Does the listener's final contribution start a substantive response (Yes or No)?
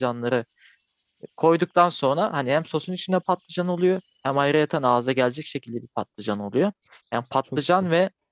No